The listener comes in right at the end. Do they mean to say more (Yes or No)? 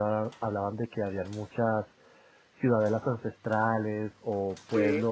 No